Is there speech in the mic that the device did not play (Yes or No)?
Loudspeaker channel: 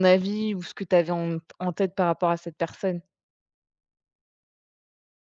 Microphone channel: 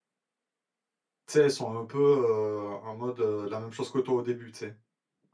Yes